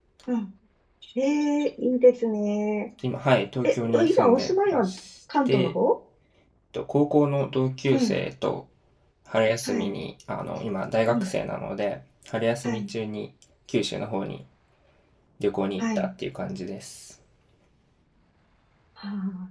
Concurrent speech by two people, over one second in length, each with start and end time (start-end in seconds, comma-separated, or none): 3.6-4.9